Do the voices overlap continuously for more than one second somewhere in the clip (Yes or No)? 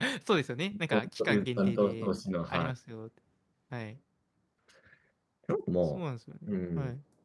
Yes